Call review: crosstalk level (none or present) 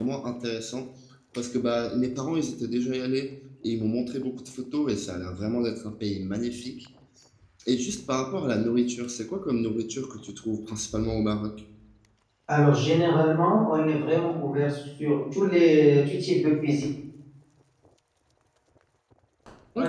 none